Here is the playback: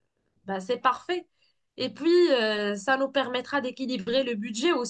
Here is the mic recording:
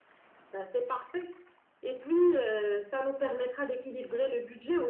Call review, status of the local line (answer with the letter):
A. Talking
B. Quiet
B